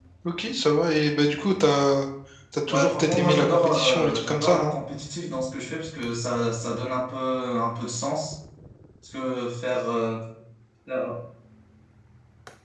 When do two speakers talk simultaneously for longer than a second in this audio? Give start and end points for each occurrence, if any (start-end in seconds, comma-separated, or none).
2.7-4.7